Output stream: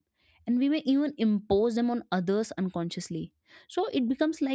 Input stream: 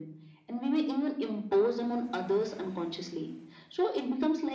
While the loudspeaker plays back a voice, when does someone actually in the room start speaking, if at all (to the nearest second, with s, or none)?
none